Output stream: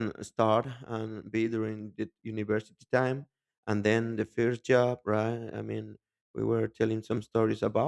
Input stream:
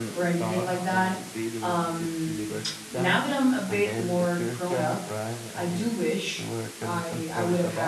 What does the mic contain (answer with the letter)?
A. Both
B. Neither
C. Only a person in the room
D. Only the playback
A